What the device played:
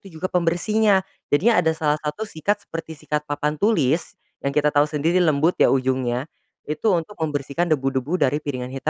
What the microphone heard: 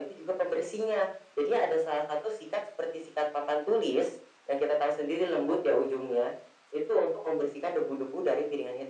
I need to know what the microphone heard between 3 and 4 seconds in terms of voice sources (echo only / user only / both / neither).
echo only